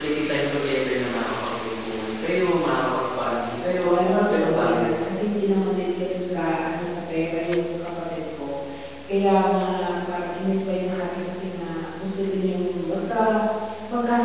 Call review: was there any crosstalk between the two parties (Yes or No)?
Yes